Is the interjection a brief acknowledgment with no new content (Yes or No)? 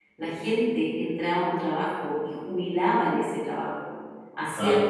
Yes